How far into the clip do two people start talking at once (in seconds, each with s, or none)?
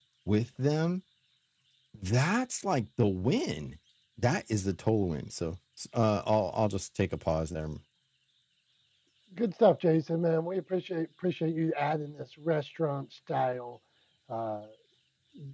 none